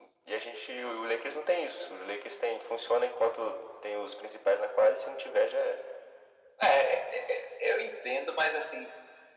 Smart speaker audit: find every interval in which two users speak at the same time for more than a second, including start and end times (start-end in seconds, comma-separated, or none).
none